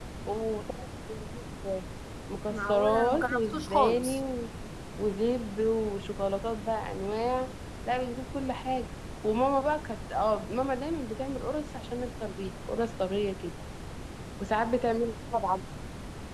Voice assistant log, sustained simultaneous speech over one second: present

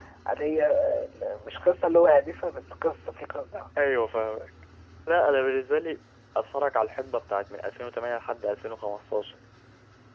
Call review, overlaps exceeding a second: none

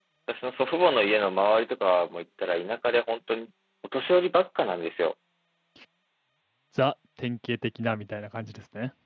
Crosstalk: none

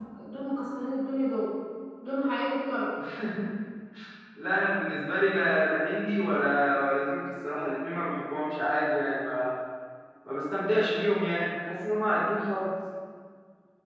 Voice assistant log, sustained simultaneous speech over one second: none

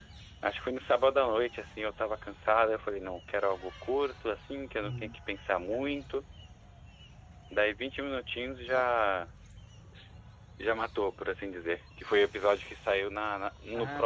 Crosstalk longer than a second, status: none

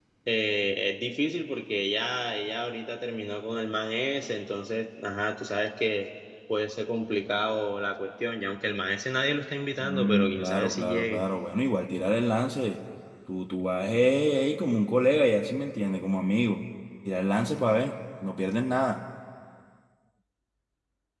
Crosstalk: present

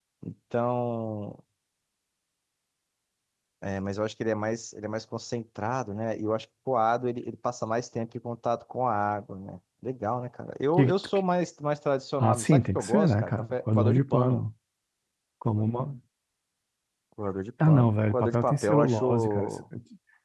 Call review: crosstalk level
present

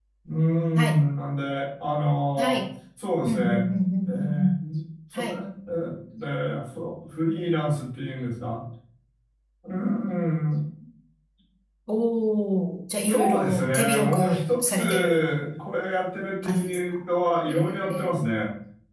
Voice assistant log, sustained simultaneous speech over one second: present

